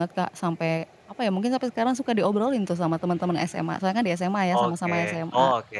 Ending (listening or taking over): taking over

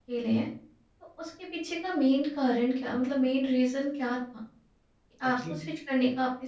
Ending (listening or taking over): listening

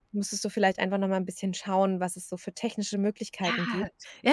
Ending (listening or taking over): taking over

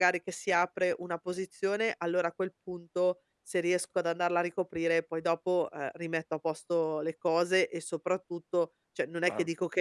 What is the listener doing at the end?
listening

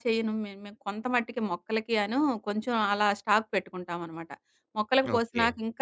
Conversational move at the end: listening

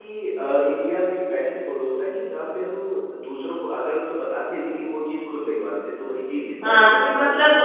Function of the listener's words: taking over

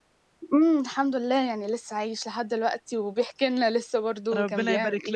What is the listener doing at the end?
taking over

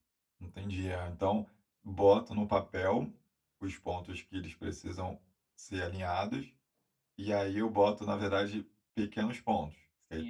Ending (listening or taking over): taking over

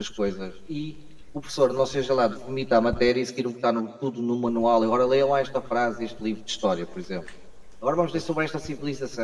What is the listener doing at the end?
listening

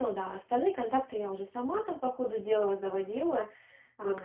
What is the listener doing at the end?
taking over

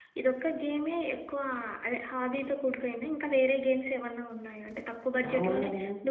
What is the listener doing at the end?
listening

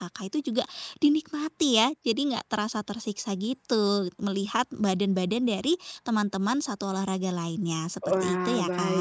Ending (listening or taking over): taking over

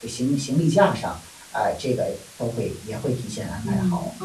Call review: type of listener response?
taking over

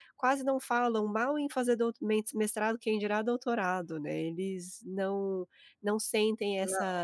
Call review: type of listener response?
listening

